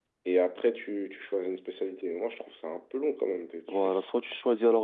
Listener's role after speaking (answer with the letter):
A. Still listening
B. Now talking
B